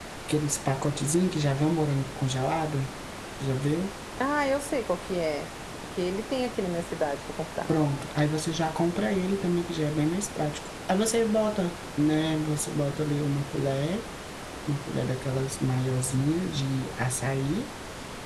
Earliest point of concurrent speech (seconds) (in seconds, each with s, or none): none